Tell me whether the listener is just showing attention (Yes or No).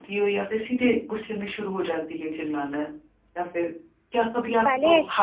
Yes